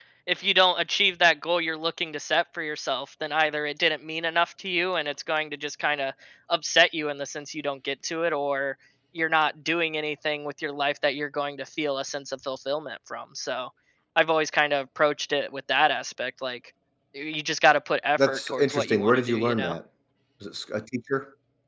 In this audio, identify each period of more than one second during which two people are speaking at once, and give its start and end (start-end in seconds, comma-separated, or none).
18.2-19.7